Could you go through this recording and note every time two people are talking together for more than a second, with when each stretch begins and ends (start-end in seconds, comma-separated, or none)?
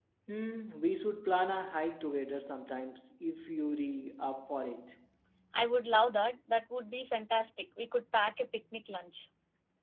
none